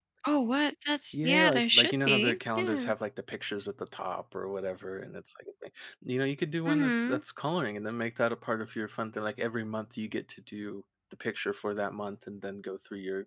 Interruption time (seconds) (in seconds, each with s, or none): 1.1 s